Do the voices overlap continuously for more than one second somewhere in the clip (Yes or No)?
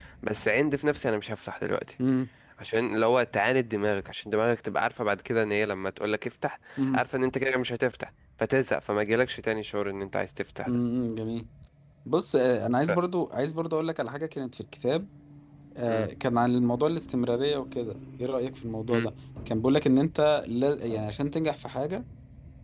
No